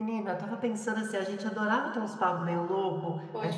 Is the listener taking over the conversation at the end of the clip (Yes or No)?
No